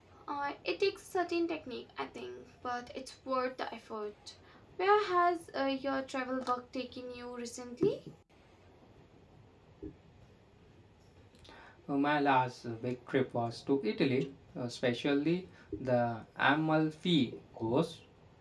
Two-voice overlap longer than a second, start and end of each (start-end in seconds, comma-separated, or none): none